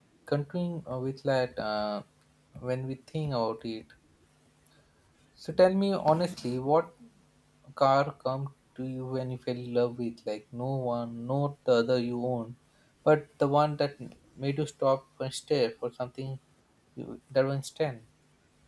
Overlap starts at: none

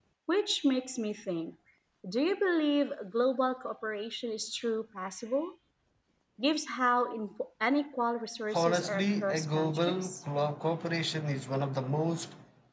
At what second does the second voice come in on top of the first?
8.5 s

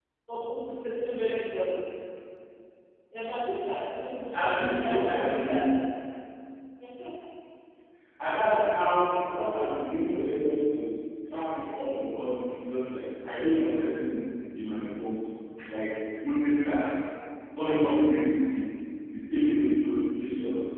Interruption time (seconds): 4.3 s

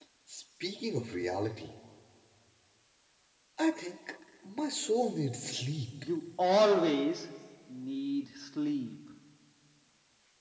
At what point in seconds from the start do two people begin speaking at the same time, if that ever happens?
none

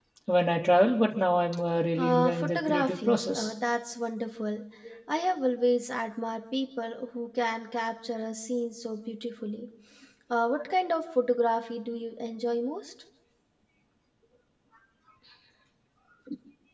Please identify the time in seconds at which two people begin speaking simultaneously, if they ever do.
2.0 s

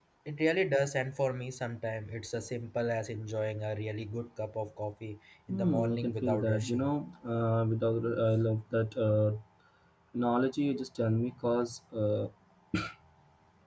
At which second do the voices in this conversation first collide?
5.5 s

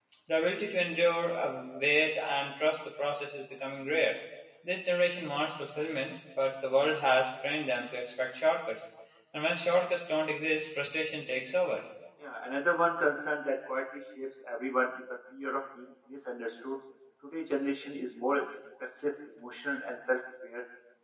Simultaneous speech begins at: none

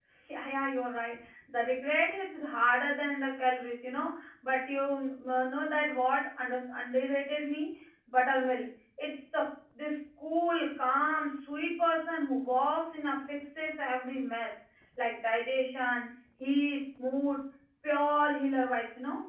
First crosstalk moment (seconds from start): none

